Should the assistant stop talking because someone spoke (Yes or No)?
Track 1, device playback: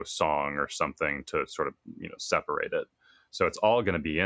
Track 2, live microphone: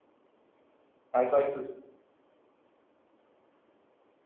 Yes